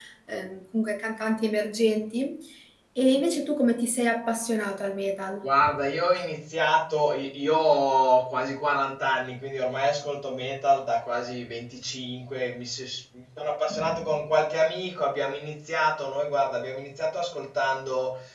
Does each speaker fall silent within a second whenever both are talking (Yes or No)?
Yes